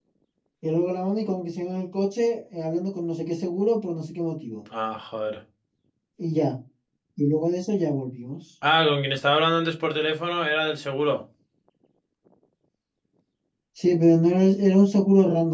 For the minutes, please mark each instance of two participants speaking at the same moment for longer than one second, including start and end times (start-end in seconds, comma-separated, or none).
none